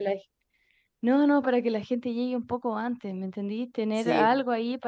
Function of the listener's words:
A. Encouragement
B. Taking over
A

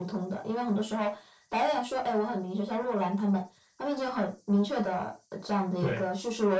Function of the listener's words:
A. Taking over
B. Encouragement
B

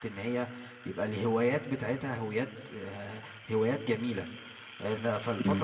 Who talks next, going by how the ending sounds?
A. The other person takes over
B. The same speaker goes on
B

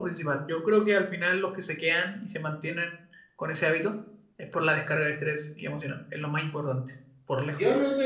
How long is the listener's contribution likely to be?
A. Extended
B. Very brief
A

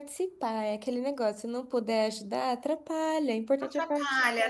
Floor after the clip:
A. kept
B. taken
B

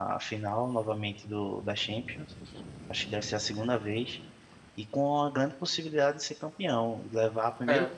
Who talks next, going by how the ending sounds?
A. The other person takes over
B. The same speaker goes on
B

